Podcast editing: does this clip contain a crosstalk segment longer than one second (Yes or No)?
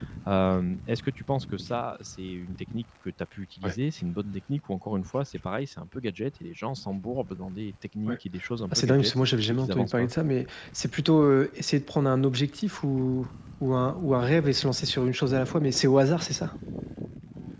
Yes